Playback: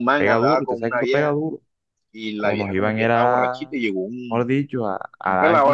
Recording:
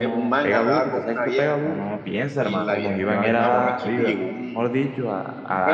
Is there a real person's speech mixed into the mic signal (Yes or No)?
Yes